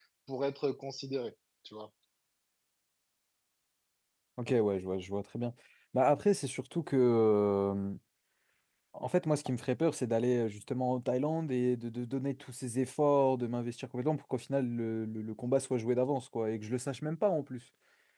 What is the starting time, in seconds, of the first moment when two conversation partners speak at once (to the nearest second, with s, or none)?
none